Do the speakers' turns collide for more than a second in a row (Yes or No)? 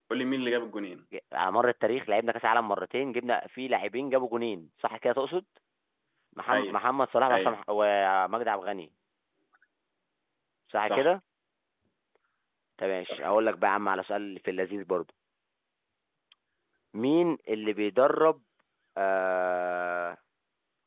No